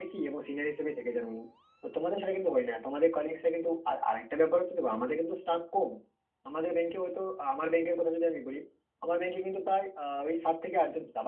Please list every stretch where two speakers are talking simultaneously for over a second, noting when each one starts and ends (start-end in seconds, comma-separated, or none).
none